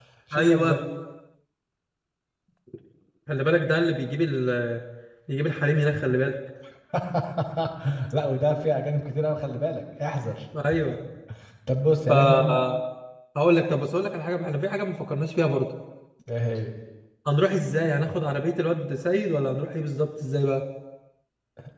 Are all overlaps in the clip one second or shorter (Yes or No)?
Yes